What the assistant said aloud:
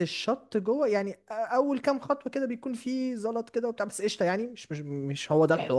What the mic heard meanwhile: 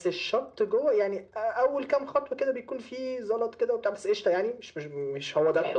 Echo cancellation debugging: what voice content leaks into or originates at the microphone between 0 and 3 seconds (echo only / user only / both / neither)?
echo only